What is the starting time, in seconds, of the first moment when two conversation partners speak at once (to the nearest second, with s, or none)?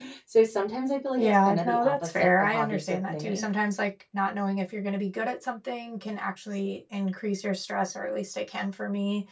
1 s